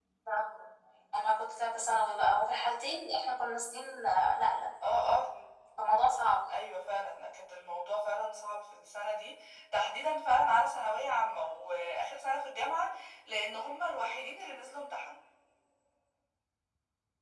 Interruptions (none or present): none